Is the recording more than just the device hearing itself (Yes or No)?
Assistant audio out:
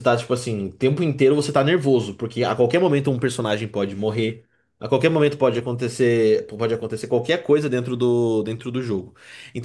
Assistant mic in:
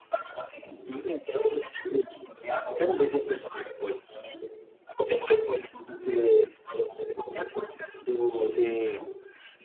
Yes